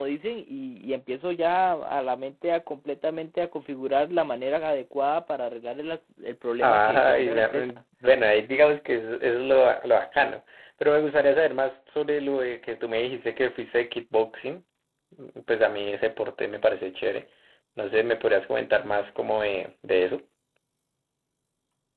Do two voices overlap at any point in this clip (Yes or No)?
Yes